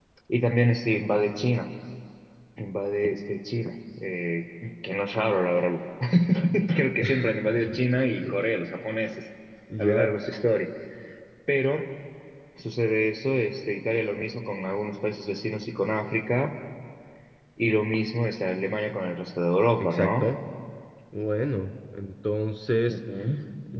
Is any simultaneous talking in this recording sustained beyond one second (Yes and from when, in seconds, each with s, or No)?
No